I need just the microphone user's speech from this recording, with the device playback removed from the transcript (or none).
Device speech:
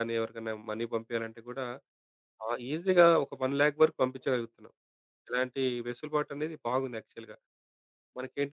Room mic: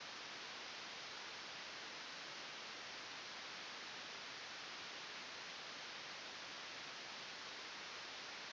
none